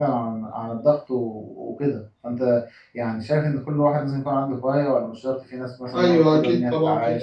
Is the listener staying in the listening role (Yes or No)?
No